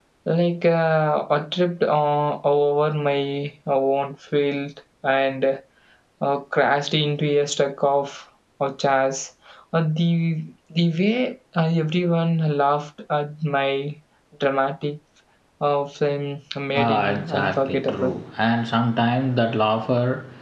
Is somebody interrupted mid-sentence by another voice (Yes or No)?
Yes